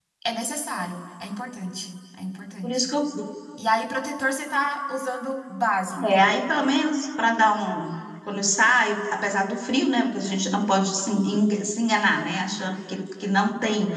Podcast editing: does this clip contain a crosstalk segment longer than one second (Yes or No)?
No